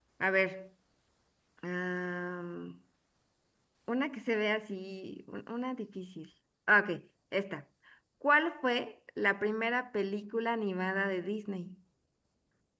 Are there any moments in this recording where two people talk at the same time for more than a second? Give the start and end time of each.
none

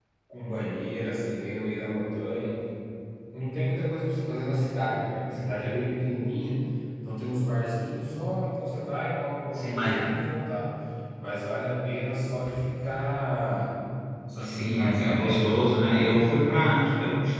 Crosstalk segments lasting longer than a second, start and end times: 14.4-15.6

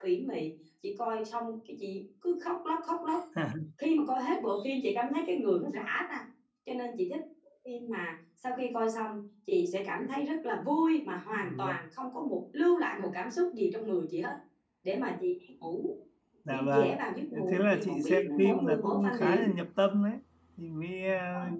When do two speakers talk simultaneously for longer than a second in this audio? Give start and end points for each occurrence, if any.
17.5-19.5

